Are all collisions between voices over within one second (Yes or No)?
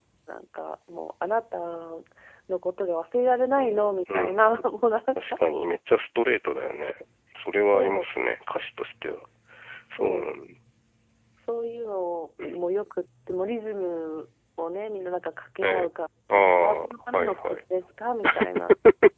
No